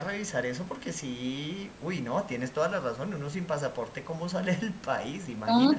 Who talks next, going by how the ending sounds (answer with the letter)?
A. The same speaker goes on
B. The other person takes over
B